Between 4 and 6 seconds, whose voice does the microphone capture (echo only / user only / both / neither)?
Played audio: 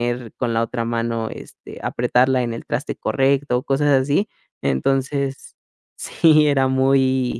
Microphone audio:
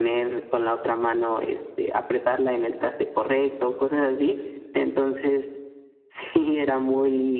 echo only